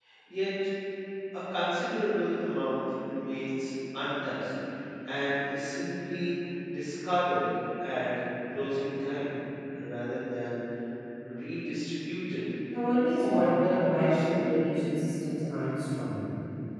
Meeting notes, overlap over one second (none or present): present